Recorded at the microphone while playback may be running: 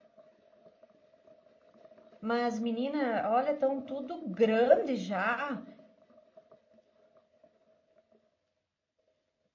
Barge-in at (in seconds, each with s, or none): 2.2 s